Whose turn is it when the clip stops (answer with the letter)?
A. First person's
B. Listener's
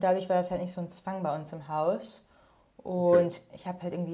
A